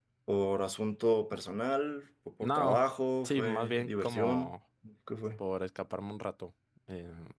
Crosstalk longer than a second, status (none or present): present